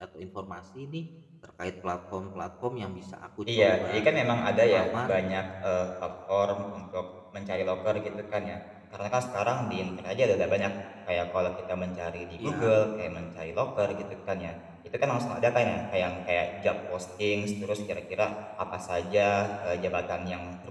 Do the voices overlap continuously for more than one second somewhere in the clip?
Yes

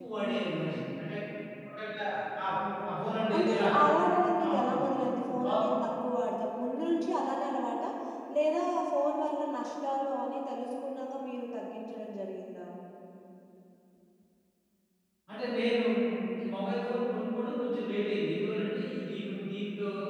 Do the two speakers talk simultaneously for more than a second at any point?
No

